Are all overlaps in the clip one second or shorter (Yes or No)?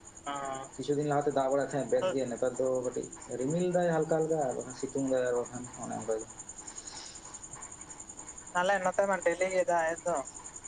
Yes